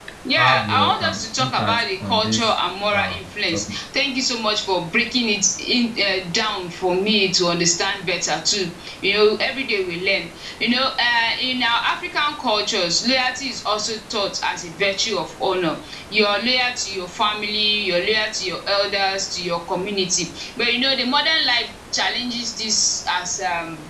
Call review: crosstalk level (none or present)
present